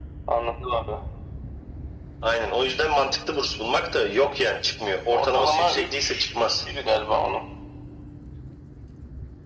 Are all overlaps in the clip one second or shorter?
No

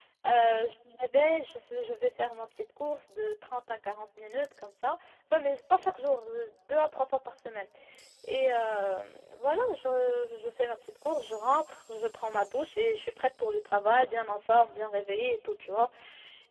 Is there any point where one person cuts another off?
No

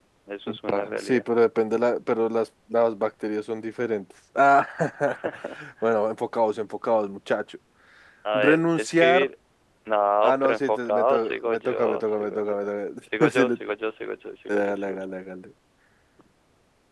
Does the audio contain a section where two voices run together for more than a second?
Yes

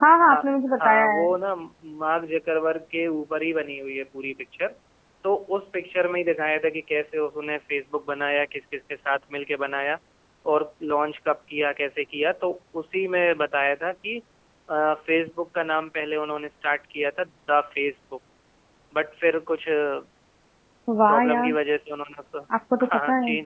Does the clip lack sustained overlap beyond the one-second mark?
Yes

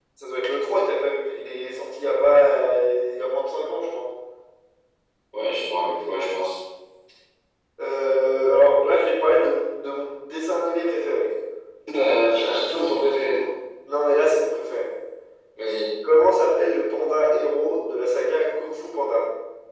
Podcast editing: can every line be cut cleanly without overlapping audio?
Yes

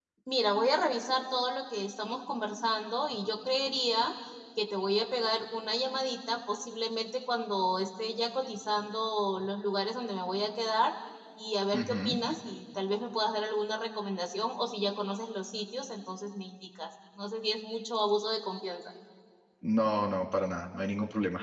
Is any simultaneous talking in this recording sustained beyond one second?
No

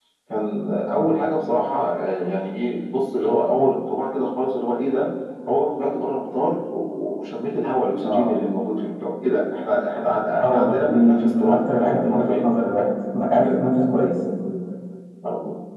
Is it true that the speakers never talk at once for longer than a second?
No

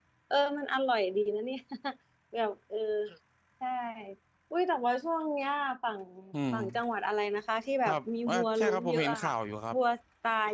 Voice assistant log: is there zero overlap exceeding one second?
No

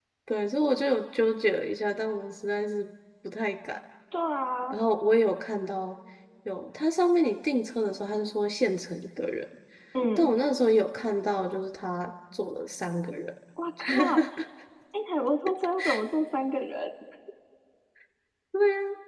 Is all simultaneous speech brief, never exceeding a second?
Yes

